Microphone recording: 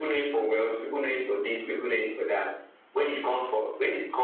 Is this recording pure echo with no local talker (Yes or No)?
Yes